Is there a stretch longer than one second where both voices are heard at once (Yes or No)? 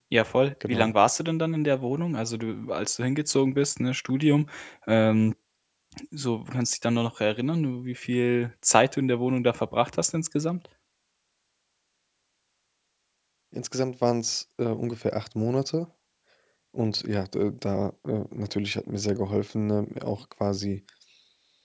No